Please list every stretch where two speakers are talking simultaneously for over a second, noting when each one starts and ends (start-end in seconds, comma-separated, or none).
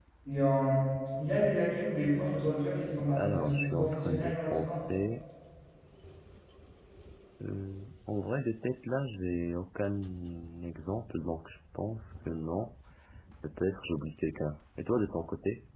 3.2-4.8